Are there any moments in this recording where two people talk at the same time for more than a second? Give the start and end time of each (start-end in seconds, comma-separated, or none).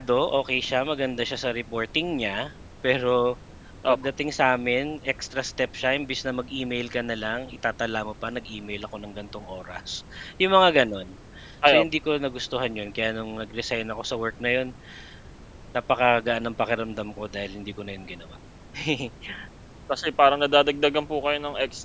none